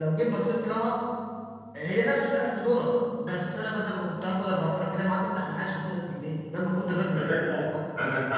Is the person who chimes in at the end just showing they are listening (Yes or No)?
No